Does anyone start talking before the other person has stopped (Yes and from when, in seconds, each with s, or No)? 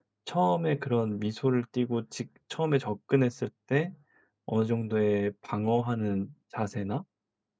No